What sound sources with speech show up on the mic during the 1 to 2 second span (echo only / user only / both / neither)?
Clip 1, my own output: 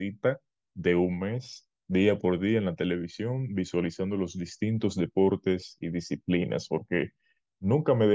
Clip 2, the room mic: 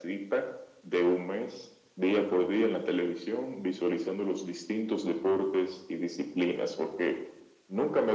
echo only